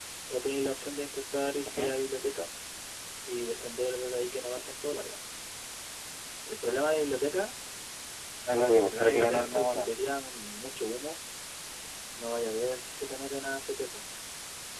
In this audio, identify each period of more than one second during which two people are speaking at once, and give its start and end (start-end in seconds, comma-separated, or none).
8.6-9.9